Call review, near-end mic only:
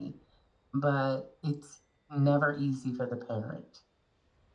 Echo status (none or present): none